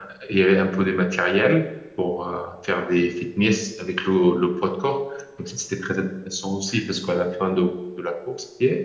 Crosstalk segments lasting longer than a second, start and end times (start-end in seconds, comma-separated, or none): none